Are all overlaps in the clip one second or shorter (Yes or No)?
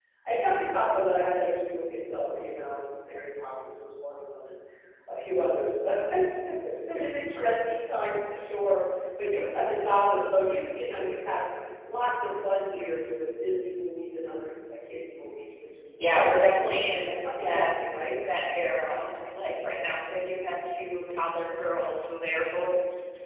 No